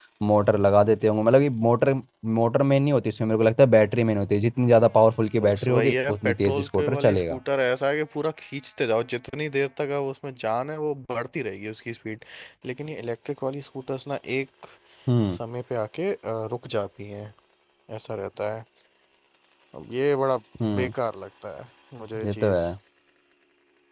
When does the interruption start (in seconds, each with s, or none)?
5.4 s